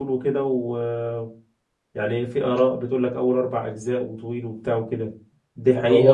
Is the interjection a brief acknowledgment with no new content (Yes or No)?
No